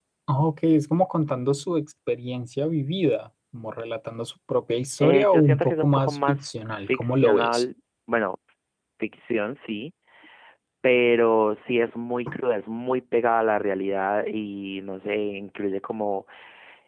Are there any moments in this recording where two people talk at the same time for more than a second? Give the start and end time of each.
5.0-7.6

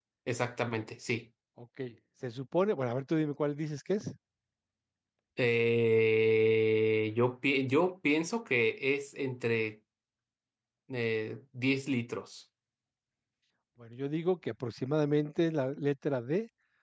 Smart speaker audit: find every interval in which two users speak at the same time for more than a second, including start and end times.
none

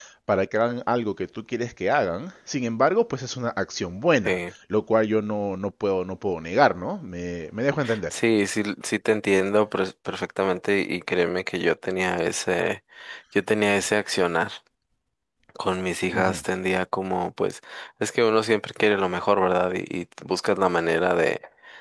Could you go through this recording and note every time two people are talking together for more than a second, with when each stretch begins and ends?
none

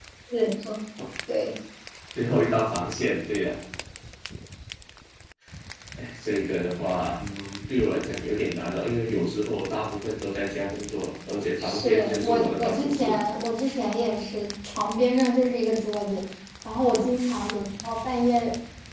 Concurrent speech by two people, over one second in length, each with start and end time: 11.6-13.2

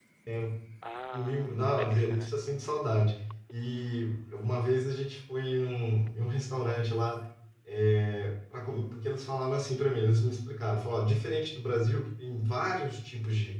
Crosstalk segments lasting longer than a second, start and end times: 1.1-2.3

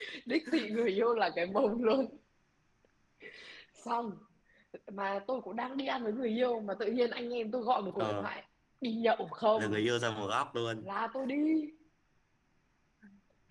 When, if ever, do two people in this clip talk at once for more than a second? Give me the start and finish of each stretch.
none

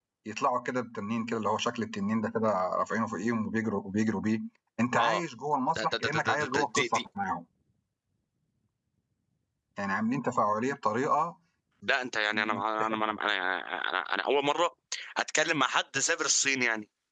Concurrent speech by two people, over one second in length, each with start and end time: 5.8-7.0

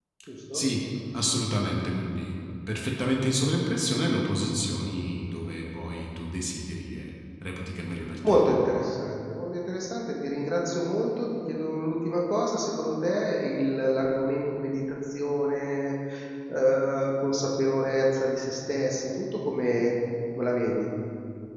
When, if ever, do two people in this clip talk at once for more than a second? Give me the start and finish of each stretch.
none

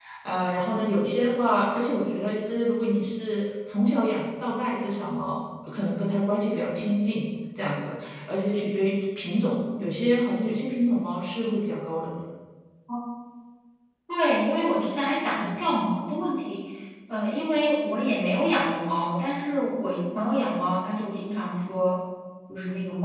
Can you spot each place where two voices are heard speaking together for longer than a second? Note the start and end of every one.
none

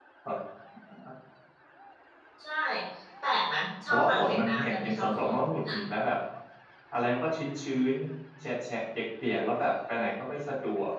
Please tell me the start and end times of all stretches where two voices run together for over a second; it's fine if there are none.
3.9-5.4

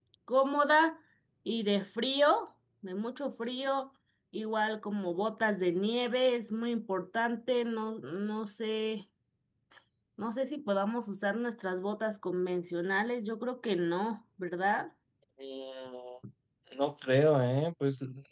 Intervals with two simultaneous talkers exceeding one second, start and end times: none

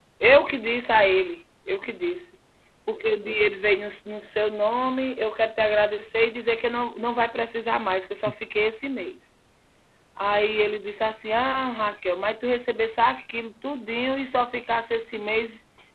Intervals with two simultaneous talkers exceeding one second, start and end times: none

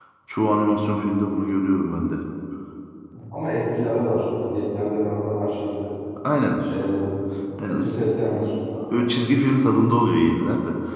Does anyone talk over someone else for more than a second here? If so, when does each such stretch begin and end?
none

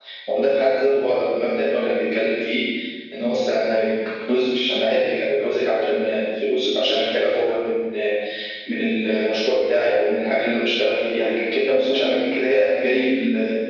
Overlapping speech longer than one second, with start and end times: none

